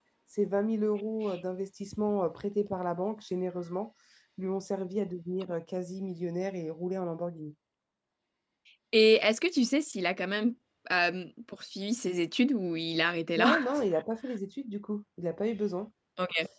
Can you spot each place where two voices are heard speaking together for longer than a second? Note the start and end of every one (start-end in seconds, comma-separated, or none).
none